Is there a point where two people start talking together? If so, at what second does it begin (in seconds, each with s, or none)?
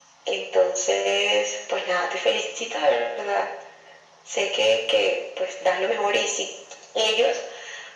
none